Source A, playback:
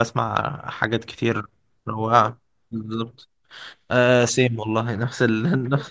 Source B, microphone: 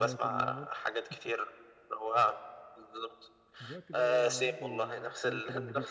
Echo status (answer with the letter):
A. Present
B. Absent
A